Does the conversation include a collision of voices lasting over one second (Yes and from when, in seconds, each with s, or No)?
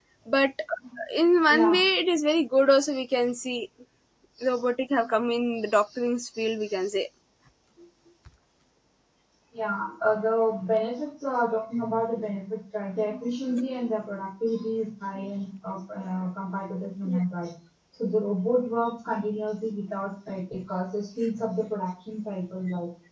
No